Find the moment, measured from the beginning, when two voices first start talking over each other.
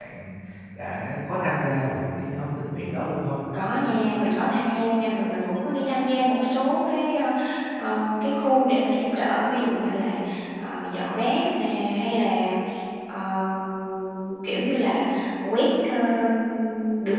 none

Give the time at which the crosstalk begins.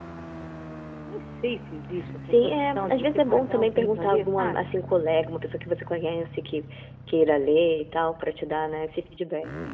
2.2 s

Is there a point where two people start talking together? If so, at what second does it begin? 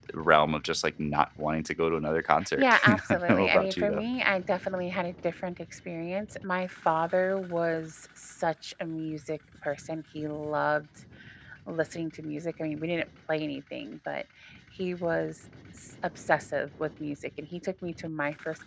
2.4 s

